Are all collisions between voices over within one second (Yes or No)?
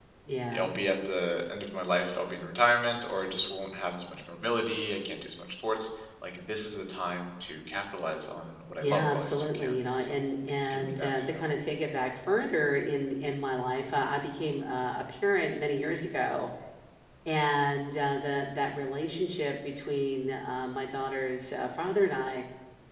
No